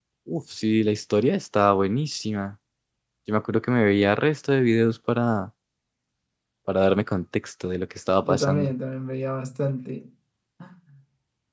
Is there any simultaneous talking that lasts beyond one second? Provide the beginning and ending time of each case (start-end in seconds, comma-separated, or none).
none